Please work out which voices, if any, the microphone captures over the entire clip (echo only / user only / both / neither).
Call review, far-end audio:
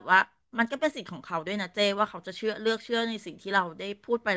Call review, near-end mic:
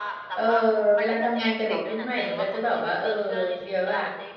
both